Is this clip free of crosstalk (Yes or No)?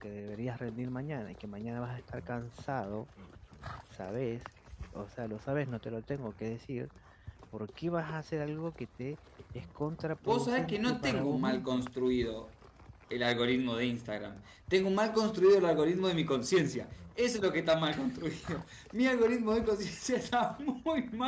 No